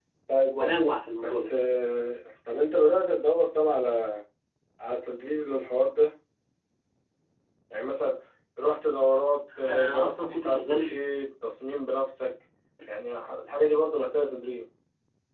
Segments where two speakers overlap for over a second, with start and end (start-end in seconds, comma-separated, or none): 9.7-10.9